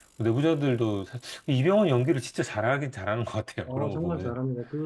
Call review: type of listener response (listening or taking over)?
taking over